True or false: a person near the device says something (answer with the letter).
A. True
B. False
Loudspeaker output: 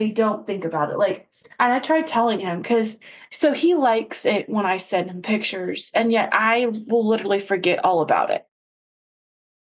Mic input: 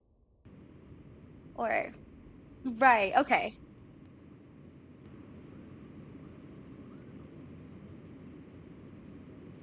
A